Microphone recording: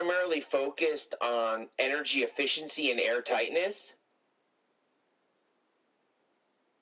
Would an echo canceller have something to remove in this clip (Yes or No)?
Yes